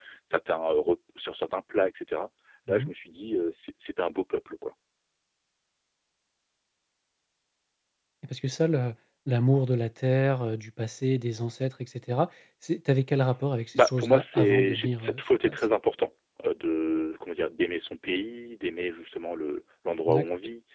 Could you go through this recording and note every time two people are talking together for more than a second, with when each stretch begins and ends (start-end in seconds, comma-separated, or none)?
13.8-15.6